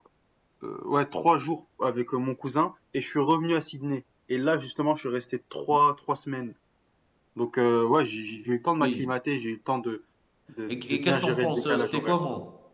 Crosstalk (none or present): present